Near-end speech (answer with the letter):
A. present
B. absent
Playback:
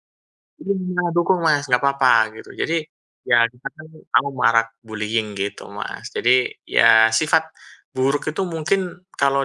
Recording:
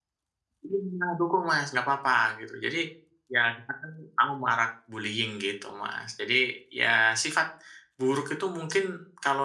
B